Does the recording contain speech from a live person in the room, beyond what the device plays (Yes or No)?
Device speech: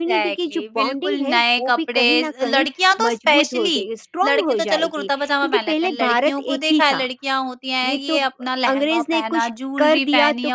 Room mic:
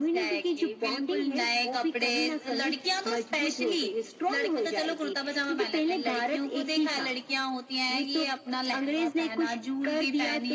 No